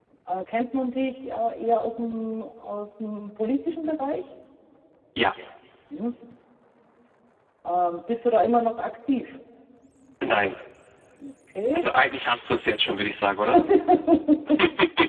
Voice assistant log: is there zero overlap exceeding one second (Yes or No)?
Yes